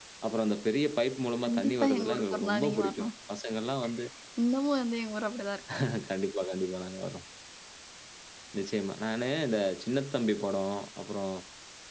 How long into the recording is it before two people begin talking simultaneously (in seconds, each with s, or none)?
1.4 s